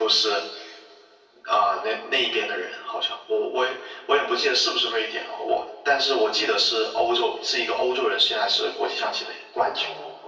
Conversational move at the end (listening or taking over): taking over